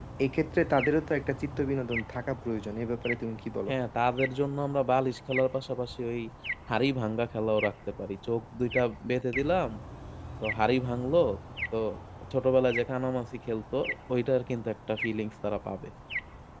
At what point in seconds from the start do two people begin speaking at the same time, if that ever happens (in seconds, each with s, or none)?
none